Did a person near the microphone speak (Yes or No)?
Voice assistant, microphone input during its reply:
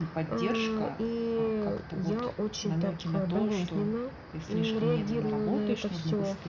Yes